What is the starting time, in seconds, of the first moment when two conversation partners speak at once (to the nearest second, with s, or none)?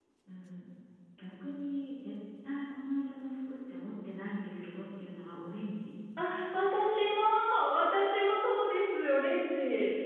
none